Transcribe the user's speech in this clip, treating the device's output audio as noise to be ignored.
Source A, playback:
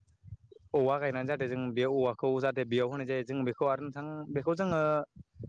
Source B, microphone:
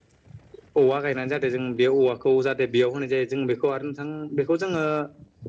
none

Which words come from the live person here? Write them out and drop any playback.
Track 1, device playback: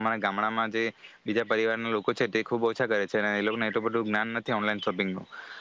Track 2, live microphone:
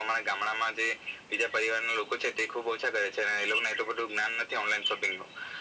none

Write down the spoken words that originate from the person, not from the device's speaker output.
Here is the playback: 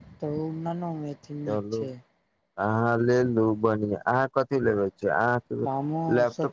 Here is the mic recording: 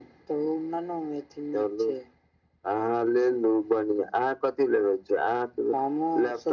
none

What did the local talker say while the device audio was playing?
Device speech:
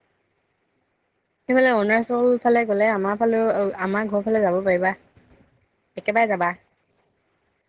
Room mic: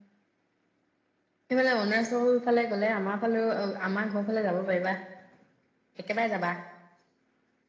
none

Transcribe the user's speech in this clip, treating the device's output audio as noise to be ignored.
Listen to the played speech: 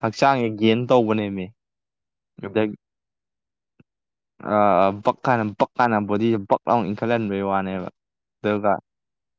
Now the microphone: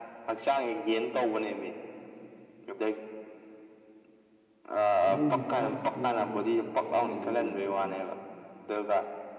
ꯑꯗꯨꯒꯤ ꯍꯋꯥ ꯅꯨꯡꯁꯤꯠꯀꯤ ꯋꯥꯗꯤ ꯂꯋꯥꯏ ꯗꯩ ꯍꯦꯟꯕ ꯂꯩꯕ ꯅꯠꯇꯦ ꯀꯩꯅꯣ

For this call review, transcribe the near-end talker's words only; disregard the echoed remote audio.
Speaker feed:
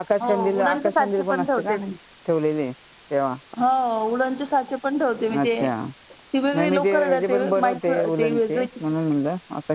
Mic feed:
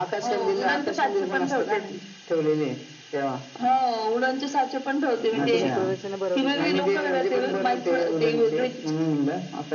मग तुम्ही प्रदर्शनं भरवली का?

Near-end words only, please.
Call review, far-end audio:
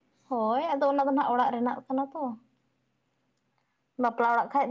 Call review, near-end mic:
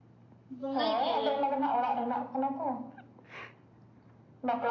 ᱵᱚᱸᱜᱟᱭ ᱜᱮᱭᱟᱞᱮ᱾

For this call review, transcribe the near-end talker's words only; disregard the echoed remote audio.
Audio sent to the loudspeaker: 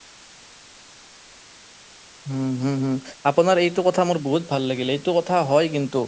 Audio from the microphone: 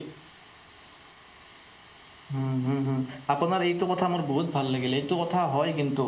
none

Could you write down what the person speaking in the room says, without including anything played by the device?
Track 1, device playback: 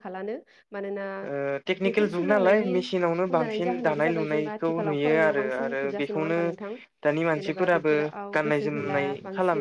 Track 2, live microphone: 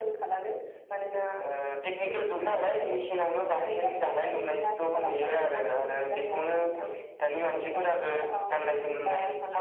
none

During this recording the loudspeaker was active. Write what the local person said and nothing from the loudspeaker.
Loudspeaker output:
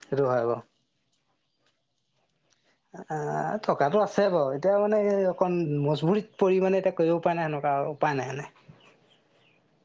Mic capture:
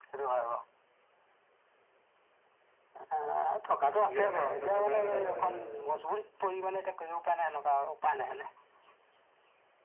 নিজৰ স্বাস্থ্যটোৰ কাৰণেও যাব লাগে মানে।

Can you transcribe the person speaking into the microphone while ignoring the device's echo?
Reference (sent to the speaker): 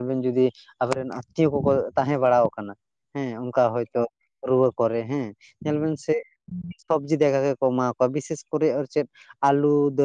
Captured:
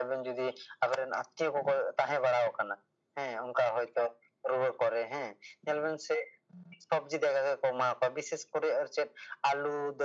none

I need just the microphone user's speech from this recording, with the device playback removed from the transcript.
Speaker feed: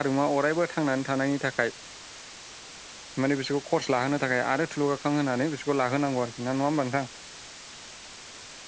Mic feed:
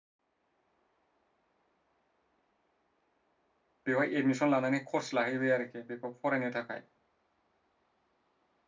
बेवाय एडमिसन लानानै कर्स लाहैबाय आरोखि बेखौ फरायनो था खाय

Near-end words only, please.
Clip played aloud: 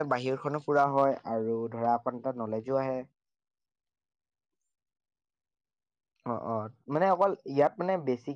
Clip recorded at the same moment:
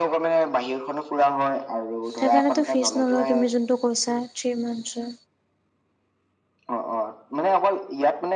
তাৰ কাৰণেতো ফিজ নলওঁ তুমি যোনটো কৈছা থ্ৰী মান্থছৰ।

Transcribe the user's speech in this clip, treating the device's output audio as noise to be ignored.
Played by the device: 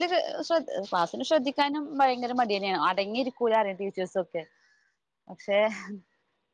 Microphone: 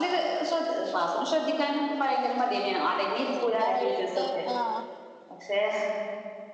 പിന്നെ ഒരു എട്ട് ആഹ്

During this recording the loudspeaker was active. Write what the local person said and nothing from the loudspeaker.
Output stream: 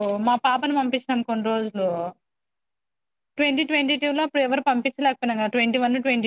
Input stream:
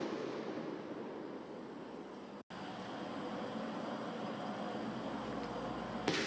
none

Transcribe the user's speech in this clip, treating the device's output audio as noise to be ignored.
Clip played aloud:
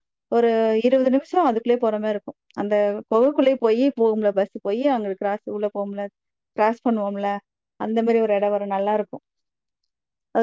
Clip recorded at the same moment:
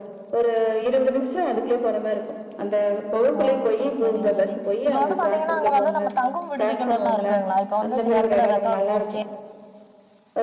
ஓ சேரி சேரிங்க தோழி இப்ப வந்து பாத்தீங்கன்னா அங்க வந்து நம்ம தங்கும் விடுதிகள் எல்லா இருக்குங்களா இப்ப வந்து சில எடத்துல ரெசாட் கோஸ்டே

